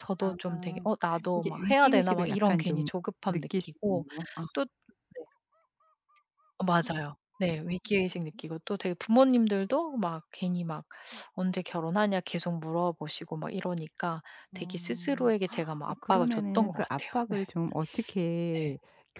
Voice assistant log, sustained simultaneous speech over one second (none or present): present